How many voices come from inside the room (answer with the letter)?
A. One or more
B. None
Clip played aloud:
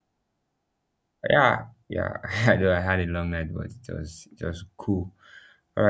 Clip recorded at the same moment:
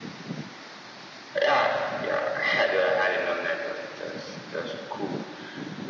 B